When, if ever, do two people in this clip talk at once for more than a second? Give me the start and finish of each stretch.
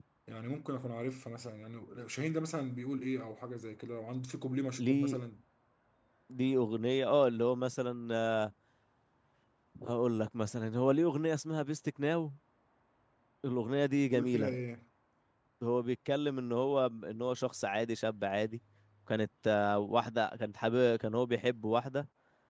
none

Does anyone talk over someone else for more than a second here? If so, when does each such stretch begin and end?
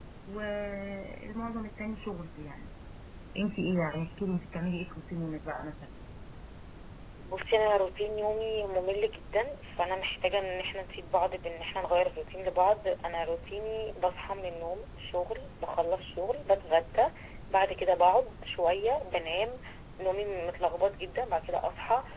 none

